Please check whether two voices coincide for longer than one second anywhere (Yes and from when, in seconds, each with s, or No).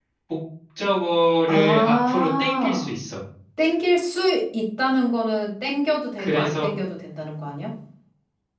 Yes, from 1.4 s